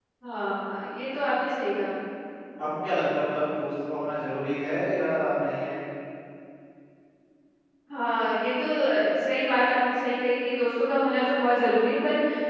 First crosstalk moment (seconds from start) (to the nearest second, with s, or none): none